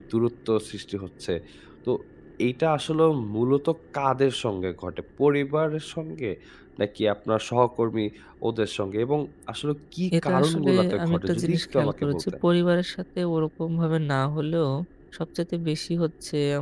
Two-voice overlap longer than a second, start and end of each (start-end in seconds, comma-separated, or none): 10.2-12.2